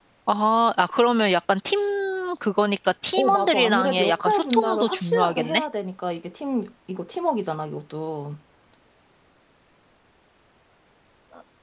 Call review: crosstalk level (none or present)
present